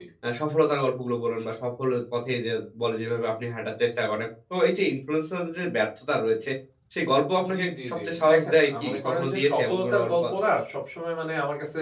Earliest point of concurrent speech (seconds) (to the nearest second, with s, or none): 8 s